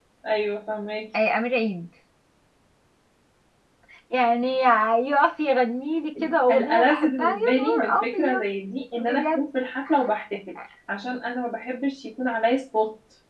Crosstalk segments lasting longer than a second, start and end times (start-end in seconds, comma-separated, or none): 6.5-8.4